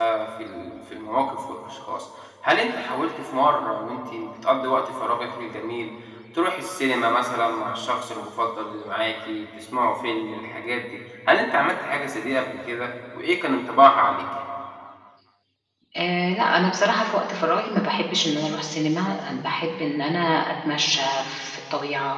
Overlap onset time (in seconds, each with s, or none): none